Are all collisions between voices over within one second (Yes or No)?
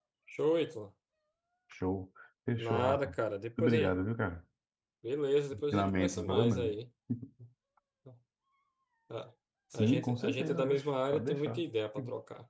No